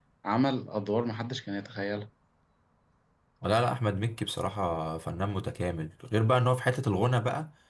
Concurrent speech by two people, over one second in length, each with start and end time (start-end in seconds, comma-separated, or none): none